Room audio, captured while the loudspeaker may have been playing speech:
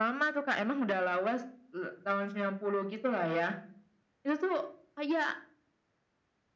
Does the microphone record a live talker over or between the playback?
No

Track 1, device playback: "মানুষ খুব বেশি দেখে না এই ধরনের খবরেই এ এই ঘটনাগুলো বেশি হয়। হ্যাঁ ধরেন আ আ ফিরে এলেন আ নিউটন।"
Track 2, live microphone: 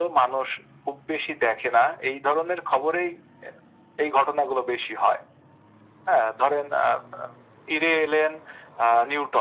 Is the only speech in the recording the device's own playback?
Yes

